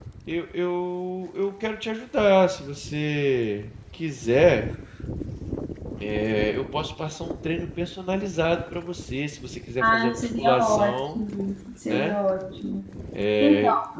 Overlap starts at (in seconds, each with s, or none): 9.8 s